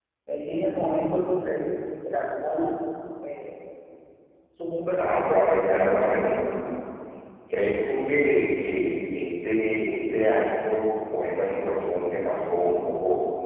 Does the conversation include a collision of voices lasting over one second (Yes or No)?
No